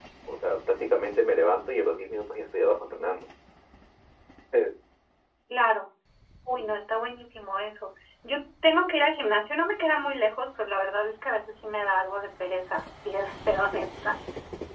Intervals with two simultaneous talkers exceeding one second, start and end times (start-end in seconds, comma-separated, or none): none